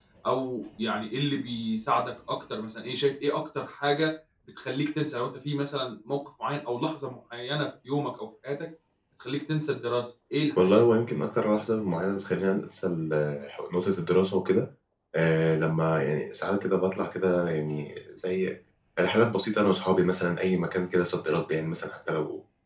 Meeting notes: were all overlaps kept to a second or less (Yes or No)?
Yes